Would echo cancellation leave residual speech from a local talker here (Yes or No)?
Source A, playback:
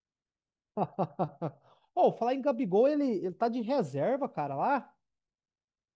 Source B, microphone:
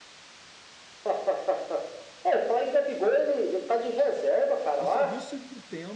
Yes